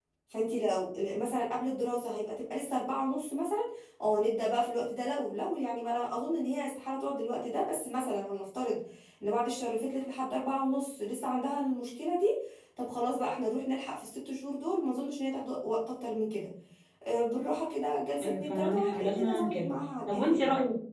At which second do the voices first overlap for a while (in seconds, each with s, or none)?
18.2 s